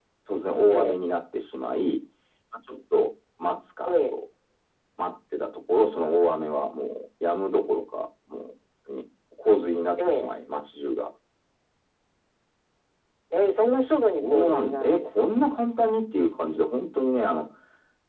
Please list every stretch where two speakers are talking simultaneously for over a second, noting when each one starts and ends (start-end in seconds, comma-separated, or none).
14.2-15.5